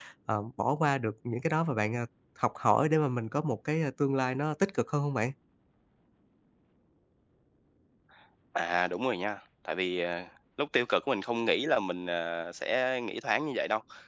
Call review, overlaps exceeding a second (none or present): none